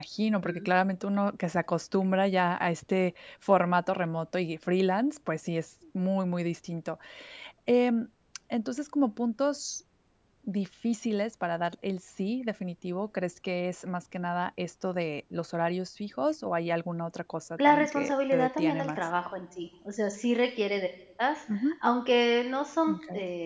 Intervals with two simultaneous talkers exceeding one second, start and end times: 17.7-19.0

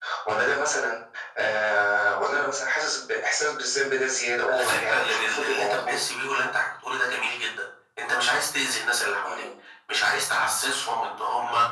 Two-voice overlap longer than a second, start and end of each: 4.5-5.9

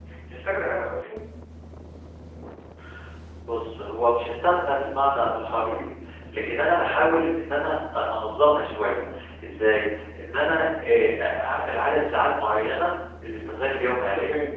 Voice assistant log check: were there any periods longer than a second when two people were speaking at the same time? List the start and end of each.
none

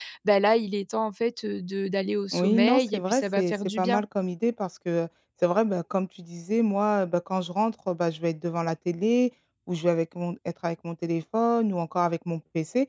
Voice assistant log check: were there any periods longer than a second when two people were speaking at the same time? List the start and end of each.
2.3-4.0

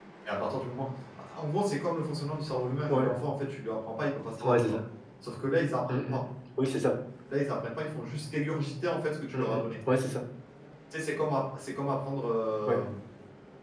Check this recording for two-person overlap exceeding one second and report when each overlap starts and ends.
none

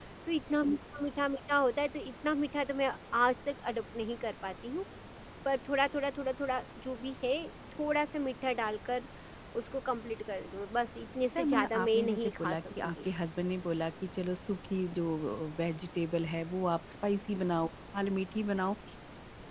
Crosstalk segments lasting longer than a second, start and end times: 11.4-13.0

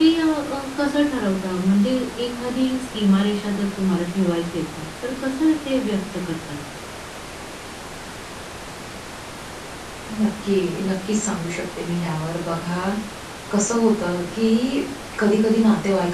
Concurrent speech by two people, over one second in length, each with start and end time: none

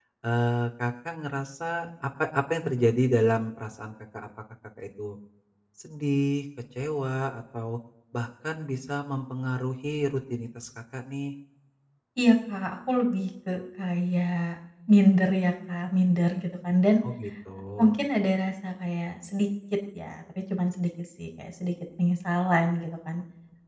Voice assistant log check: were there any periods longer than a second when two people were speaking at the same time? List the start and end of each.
none

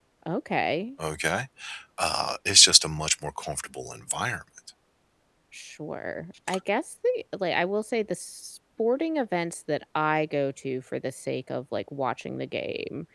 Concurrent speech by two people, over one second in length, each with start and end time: none

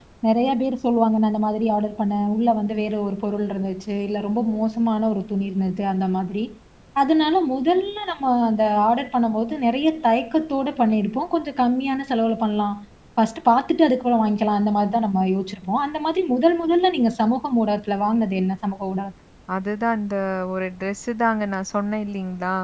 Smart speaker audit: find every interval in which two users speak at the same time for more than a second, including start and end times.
none

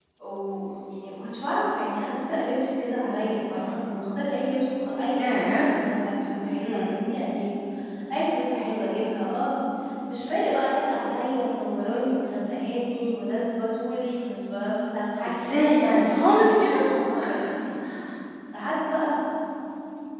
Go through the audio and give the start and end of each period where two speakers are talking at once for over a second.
15.3-16.8

